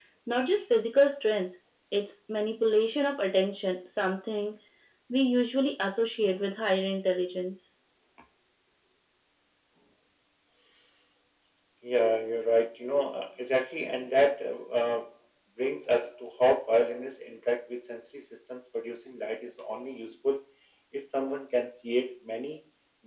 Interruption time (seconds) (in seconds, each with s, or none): none